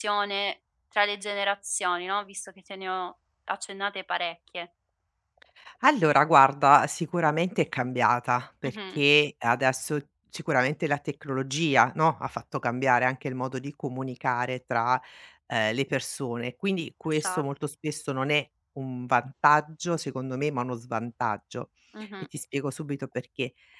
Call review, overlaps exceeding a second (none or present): none